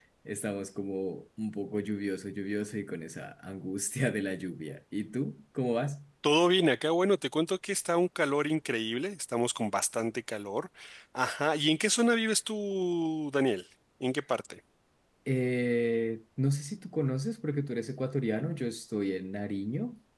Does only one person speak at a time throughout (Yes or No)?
Yes